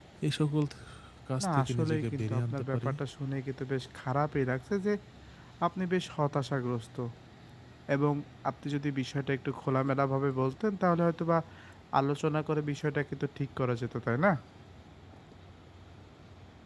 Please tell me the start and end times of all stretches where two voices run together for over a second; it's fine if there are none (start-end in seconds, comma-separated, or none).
1.4-2.9